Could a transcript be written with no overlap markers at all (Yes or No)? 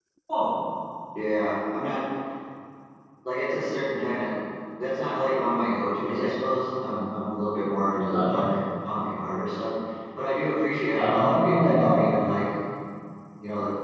No